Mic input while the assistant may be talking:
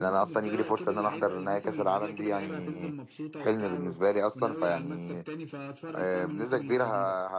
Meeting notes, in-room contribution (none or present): present